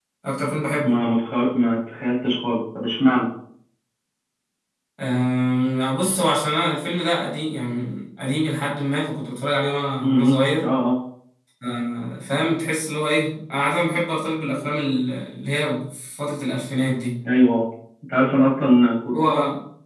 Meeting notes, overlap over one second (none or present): none